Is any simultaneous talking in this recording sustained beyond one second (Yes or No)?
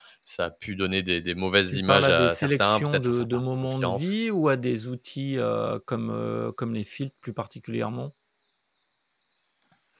Yes